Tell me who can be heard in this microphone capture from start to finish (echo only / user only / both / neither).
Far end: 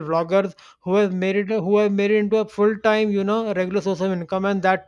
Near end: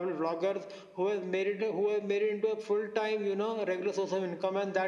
echo only